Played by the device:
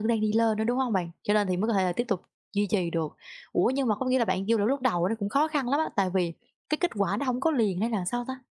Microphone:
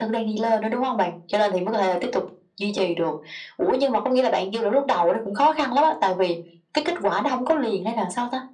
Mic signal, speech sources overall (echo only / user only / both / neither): echo only